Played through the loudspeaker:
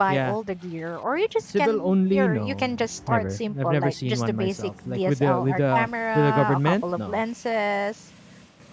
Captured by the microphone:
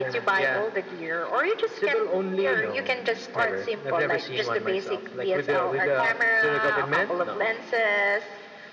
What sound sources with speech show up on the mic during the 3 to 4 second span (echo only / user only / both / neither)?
echo only